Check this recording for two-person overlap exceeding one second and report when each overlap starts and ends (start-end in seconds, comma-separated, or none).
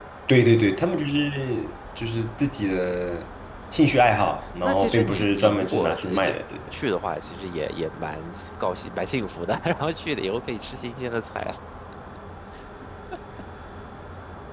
4.6-6.2